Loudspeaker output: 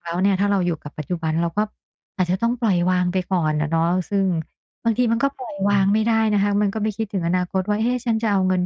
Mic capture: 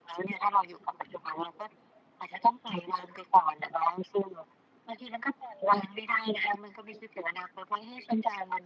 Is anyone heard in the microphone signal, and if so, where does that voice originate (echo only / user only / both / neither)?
echo only